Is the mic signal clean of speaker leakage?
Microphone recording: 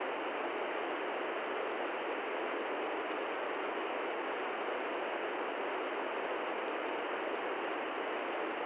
Yes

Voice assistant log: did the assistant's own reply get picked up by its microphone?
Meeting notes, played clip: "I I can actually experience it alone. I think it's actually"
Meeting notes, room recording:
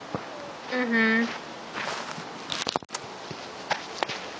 No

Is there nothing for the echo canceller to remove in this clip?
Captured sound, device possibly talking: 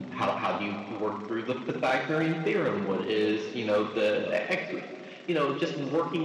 No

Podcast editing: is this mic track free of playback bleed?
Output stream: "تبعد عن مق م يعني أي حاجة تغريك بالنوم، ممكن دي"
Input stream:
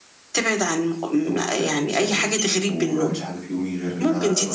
No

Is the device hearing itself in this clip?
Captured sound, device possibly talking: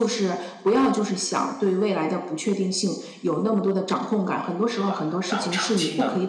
Yes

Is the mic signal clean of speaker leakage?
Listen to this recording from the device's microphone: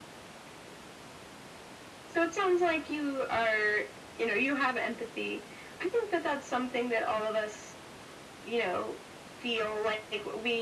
No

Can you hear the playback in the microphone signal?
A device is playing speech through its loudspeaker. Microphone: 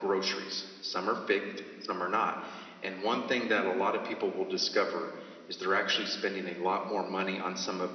Yes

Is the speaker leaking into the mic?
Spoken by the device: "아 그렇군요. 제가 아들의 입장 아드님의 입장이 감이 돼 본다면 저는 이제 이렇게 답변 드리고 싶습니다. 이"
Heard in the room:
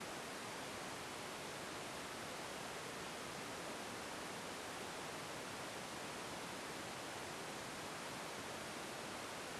No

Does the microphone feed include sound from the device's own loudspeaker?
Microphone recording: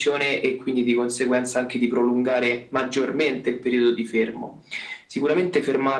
Yes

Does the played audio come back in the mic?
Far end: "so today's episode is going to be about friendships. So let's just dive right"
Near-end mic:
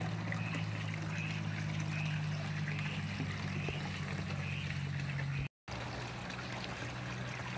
No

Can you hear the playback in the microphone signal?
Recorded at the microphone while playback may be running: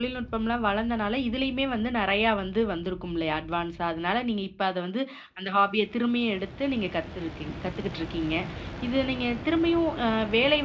No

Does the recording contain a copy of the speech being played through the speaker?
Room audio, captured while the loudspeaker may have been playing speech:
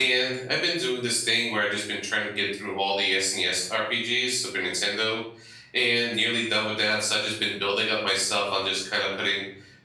No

